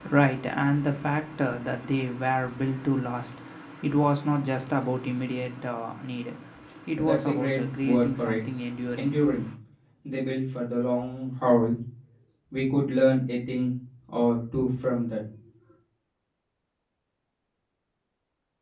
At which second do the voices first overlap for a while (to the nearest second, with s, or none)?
7 s